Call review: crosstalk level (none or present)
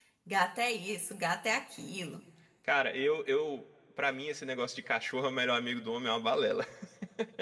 none